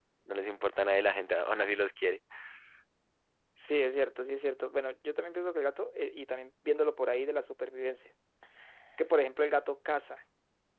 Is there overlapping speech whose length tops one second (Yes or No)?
No